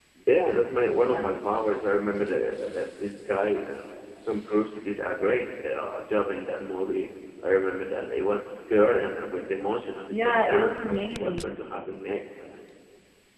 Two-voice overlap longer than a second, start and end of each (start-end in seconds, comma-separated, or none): 10.1-11.5